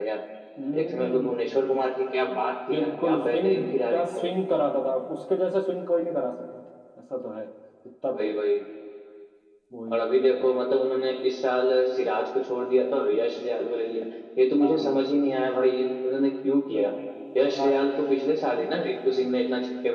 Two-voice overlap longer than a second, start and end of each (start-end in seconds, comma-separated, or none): 2.7-4.3